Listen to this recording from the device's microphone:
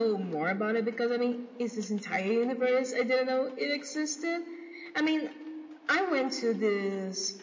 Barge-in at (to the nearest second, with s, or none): none